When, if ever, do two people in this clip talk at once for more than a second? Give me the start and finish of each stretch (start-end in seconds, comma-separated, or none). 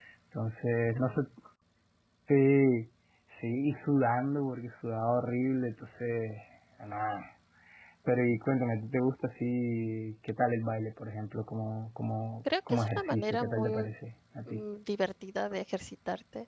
12.7-13.9